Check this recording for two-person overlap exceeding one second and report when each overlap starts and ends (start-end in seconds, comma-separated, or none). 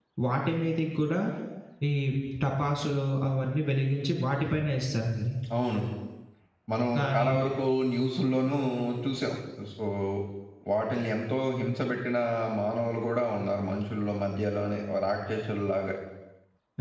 none